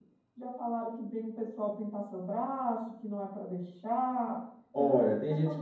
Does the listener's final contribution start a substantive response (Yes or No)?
Yes